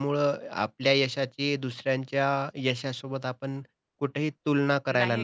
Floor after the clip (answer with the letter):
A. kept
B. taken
B